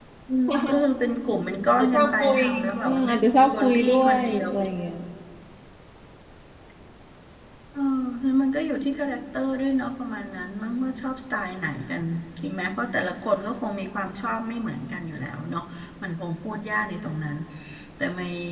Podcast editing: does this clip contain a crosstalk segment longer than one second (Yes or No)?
Yes